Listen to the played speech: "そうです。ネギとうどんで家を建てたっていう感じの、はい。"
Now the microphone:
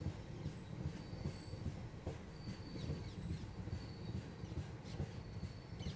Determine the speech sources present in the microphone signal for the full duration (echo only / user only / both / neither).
neither